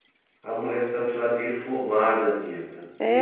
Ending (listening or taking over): taking over